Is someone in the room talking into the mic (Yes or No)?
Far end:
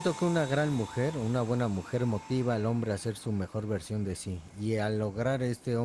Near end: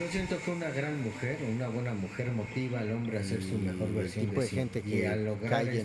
Yes